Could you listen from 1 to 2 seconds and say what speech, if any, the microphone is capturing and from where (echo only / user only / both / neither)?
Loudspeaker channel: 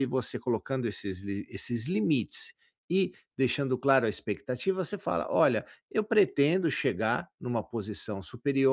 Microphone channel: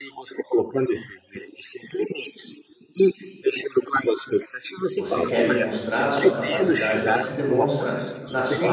echo only